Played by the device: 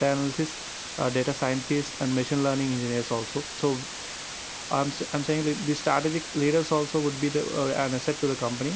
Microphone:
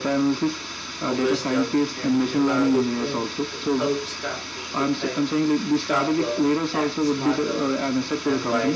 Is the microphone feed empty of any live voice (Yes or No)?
No